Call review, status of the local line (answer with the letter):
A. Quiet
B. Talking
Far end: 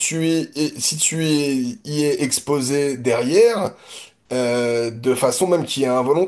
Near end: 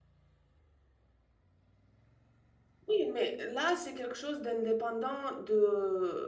B